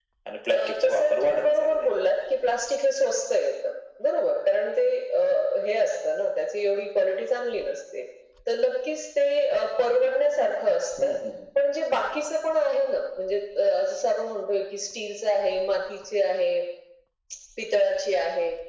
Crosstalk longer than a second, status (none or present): present